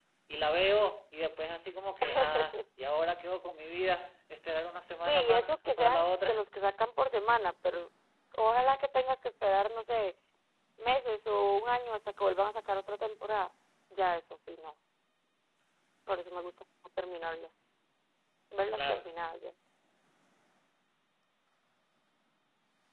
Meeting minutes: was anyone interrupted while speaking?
Yes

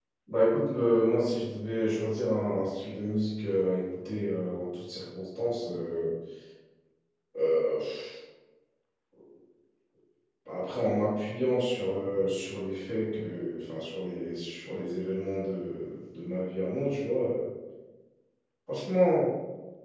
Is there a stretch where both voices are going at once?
No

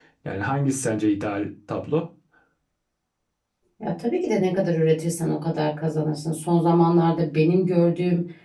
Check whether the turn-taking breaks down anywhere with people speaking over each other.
No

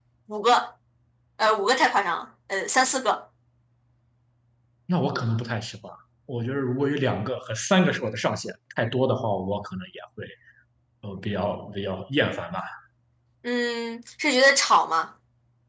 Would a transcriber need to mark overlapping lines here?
No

